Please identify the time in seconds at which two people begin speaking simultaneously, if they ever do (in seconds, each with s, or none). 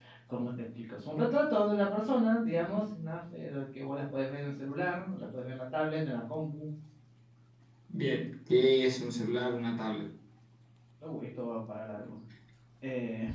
none